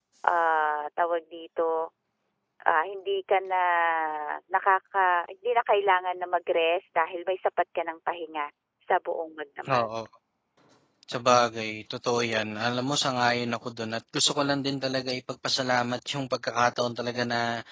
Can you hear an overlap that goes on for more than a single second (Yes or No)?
No